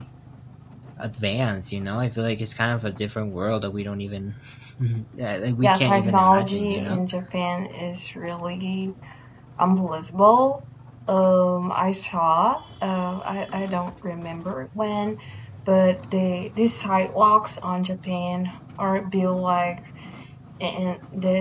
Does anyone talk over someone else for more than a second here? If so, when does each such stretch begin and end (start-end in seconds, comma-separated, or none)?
5.6-7.0